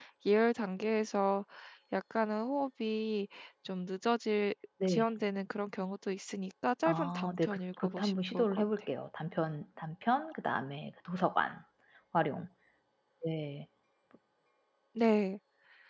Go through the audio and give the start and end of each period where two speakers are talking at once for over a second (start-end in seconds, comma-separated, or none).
6.8-8.6